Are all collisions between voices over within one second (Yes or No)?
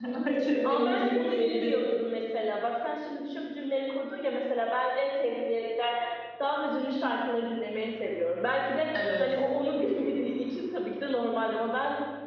No